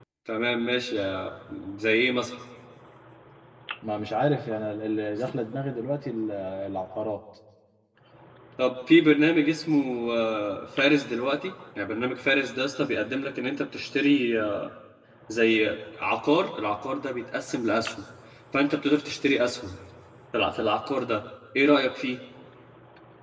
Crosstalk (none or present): none